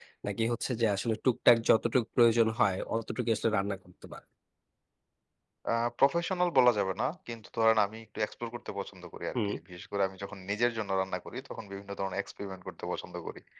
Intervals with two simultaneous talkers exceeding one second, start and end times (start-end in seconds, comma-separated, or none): none